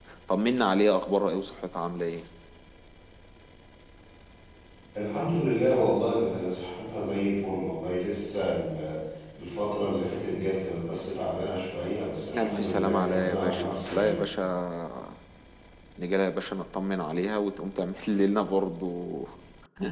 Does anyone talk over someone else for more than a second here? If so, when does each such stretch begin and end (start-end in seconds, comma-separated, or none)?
12.4-14.2